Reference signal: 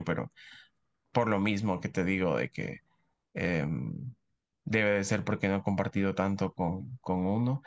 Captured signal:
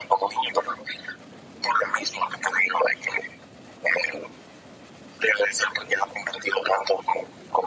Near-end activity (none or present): none